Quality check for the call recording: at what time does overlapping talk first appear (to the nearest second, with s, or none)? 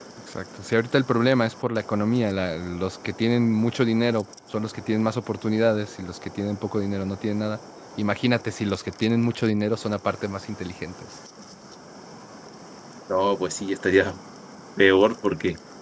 none